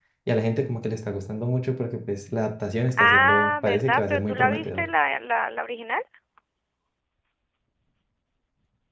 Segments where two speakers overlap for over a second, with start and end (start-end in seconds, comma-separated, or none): 3.0-4.8